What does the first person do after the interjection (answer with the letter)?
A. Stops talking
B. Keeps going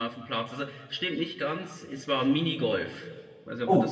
A